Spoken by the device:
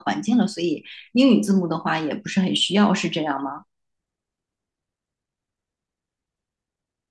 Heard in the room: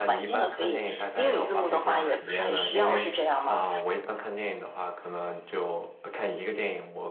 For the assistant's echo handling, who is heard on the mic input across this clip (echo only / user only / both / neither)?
both